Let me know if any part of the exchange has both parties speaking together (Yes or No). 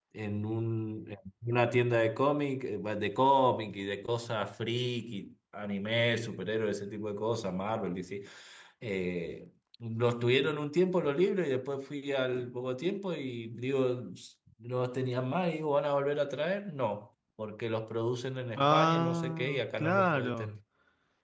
Yes